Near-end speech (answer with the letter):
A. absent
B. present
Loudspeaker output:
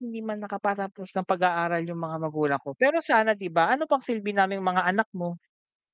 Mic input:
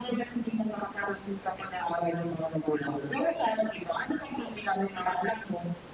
A